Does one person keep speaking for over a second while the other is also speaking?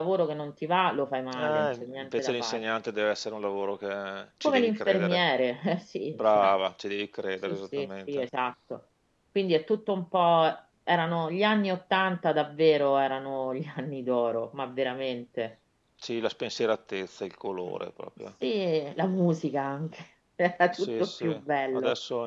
Yes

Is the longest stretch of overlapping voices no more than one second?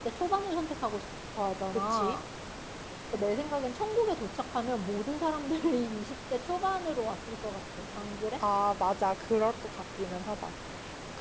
Yes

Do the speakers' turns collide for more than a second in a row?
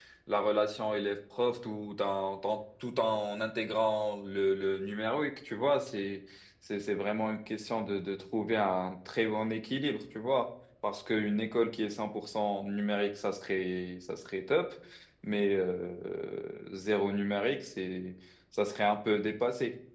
No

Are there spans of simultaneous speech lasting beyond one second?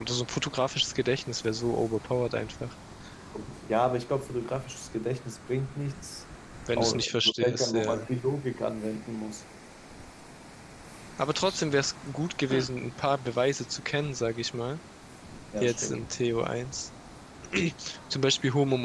Yes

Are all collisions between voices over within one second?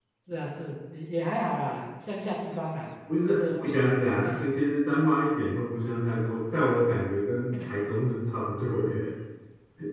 Yes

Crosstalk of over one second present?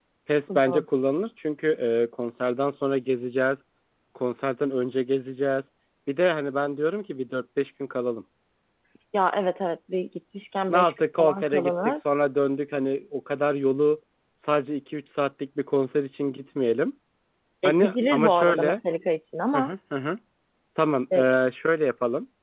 Yes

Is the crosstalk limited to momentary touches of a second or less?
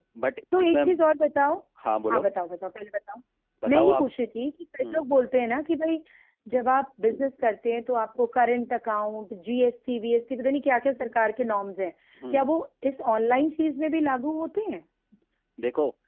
Yes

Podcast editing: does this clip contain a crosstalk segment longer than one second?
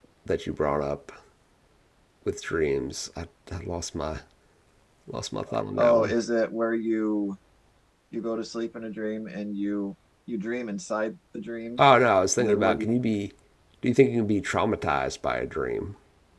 No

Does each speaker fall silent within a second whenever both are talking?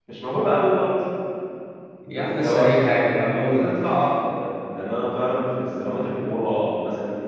No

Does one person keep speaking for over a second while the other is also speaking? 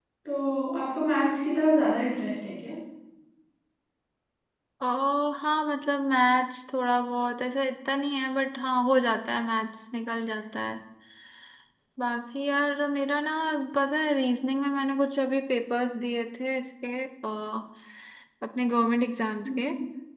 No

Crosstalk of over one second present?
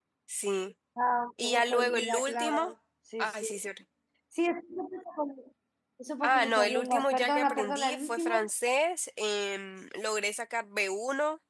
Yes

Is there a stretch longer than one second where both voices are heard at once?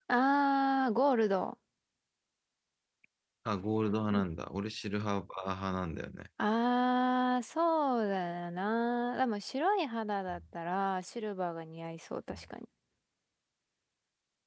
No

